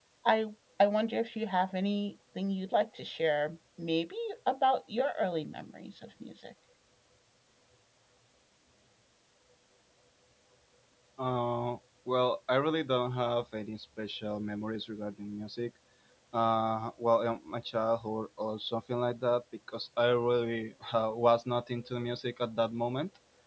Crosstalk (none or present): none